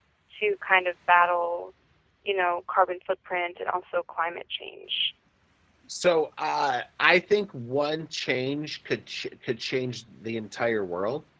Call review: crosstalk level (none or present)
none